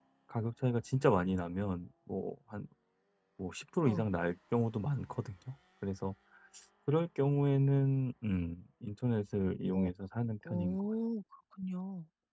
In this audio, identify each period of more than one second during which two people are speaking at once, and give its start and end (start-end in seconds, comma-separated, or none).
none